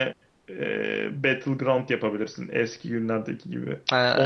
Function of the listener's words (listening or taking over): listening